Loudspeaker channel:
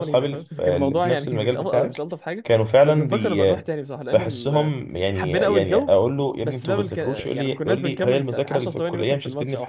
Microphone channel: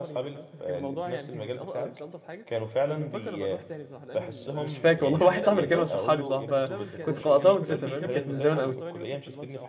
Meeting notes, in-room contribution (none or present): present